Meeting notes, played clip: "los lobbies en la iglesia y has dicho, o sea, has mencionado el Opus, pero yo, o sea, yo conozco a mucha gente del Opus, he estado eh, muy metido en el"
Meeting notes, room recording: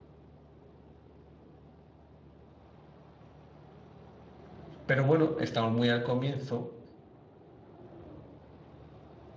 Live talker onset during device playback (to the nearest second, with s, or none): 5 s